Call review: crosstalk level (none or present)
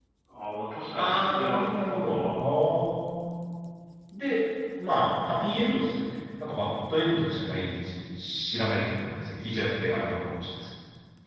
present